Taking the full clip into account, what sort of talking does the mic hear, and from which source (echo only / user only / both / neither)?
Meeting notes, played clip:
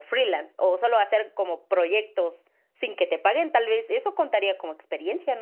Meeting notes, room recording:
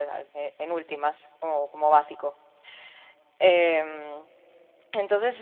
user only